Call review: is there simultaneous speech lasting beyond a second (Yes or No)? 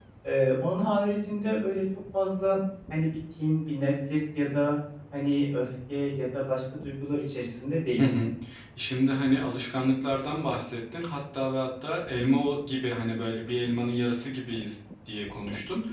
No